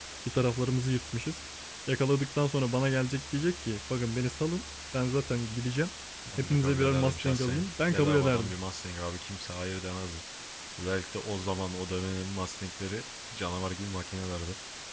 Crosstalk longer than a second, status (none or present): present